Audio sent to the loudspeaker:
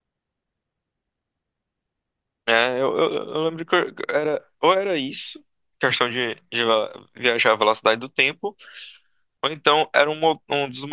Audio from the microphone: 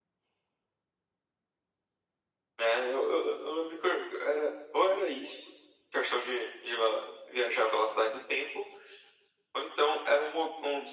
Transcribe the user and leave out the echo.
none

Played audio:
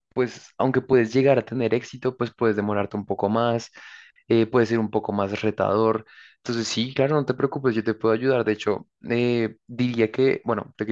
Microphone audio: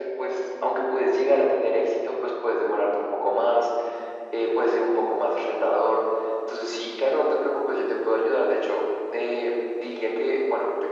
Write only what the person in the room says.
none

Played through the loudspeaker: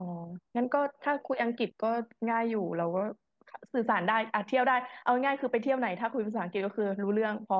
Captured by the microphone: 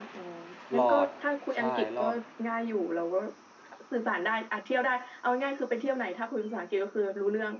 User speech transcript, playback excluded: หลอดใช่หลอด

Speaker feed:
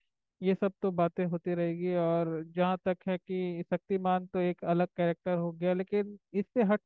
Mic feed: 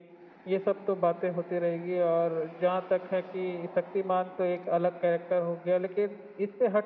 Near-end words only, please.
none

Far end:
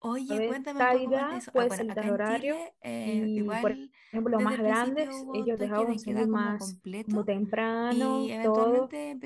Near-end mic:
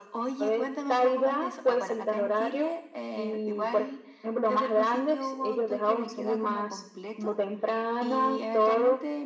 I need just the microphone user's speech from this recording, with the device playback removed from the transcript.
none

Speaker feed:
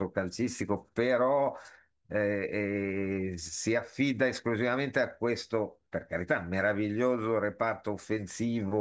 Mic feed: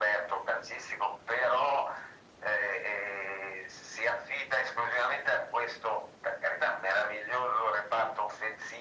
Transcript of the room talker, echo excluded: none

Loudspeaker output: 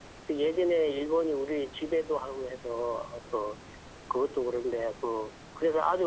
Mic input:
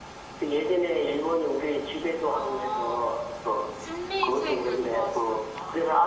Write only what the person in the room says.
아, 심리 책을 좋아하시나 보다.

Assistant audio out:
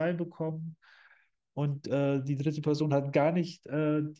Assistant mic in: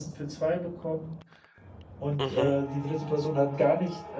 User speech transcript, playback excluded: Mhm.

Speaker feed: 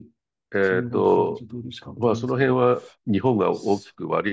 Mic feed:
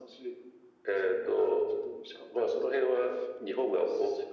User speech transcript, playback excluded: none

